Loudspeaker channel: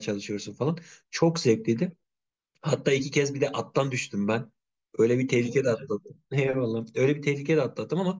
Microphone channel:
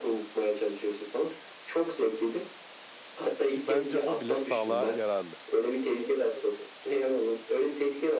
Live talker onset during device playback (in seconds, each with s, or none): 3.5 s